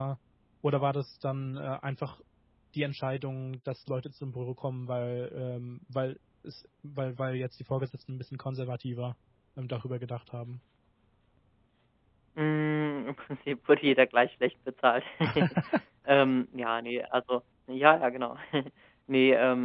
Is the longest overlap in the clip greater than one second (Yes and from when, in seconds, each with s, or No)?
No